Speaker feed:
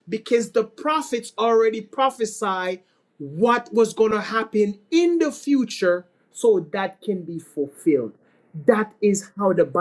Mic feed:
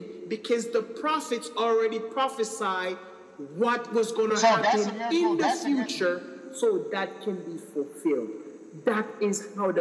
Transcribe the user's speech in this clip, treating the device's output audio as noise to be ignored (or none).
So that's a miracle. That's a miracle.